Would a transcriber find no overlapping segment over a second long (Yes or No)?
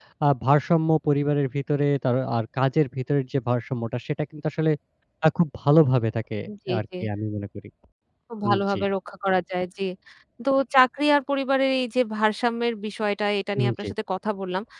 Yes